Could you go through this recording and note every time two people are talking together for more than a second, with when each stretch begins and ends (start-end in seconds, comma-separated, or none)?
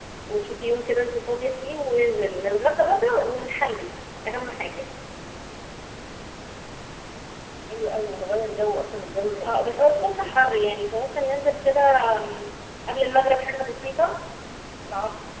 9.4-10.6